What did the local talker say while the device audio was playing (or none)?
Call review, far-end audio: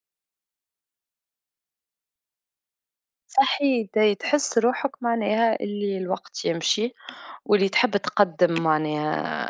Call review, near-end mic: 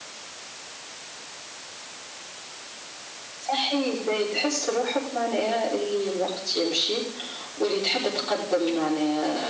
none